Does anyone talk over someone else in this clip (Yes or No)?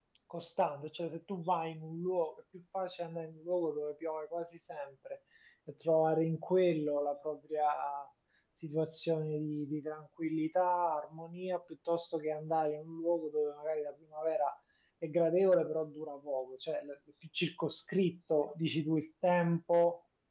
No